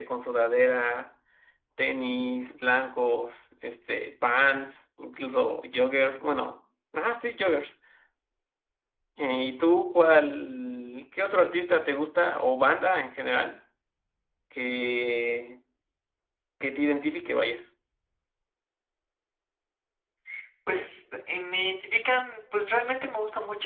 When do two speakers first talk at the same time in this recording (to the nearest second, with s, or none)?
none